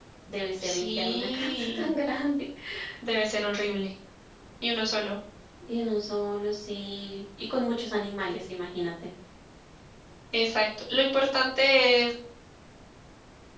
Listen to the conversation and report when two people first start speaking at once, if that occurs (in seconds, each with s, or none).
0.7 s